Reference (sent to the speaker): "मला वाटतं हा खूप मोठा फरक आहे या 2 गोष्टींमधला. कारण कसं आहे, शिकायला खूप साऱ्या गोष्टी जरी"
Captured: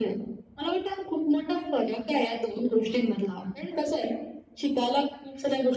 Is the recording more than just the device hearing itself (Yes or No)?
No